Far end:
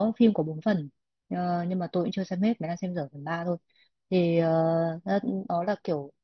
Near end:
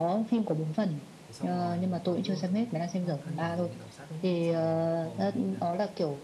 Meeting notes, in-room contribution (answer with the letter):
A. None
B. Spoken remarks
B